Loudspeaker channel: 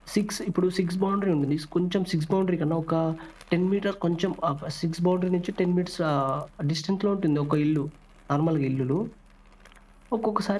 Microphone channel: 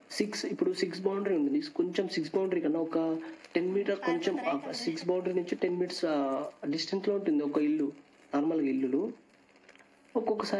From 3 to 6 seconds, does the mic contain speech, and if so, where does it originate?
both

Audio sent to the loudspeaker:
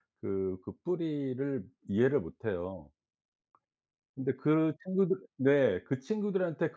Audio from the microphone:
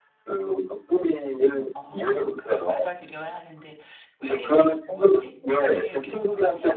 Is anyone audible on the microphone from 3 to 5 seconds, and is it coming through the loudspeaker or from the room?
both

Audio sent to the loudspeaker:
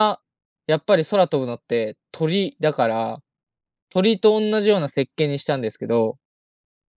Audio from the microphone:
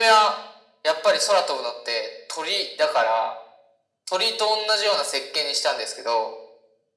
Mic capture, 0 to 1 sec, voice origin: echo only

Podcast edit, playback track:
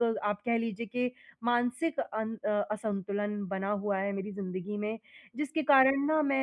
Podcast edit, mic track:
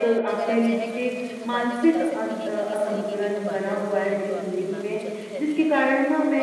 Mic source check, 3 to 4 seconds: both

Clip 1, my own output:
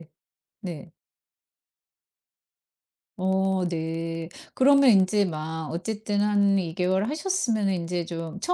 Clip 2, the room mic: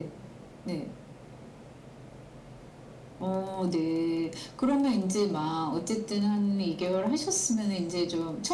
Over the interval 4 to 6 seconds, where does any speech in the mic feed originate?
echo only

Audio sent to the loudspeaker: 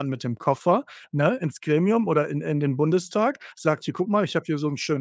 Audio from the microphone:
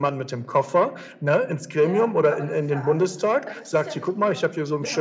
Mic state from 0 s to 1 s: echo only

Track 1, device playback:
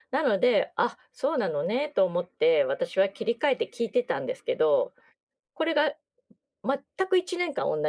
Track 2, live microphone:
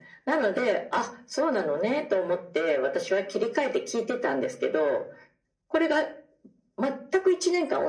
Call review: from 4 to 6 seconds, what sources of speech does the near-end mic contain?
echo only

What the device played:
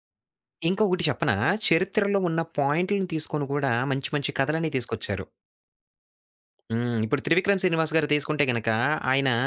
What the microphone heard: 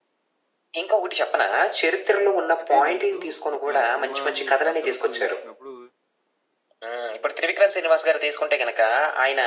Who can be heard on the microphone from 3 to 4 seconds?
both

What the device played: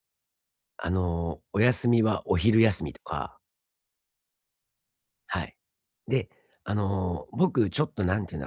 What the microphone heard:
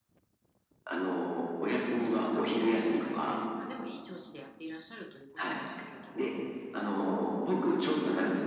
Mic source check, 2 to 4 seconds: both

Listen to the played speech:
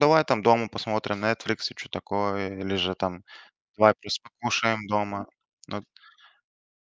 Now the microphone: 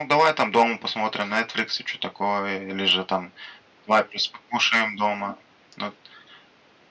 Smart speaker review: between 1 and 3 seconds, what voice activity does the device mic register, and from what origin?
echo only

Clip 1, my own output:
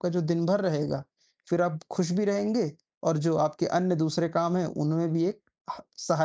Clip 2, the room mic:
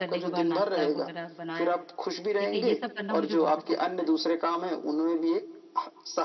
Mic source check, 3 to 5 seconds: both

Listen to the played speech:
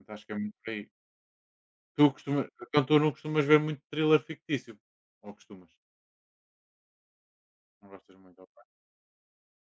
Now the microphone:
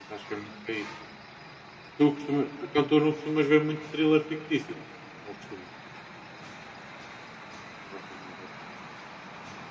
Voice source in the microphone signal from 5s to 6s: echo only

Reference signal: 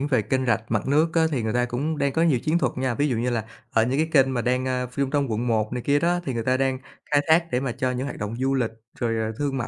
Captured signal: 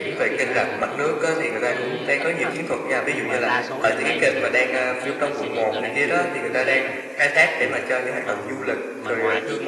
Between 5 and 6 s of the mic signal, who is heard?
both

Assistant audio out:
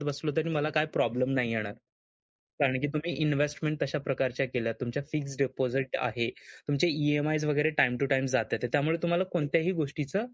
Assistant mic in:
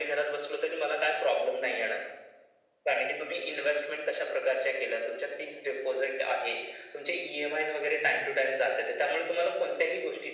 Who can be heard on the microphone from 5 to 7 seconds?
echo only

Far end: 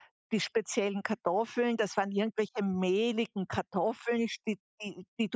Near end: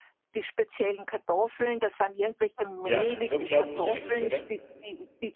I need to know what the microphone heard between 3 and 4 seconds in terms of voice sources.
both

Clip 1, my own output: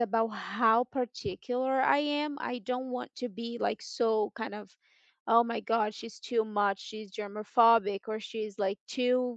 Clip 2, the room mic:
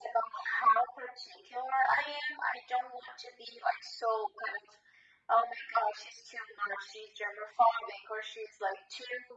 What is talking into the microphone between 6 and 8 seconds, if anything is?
echo only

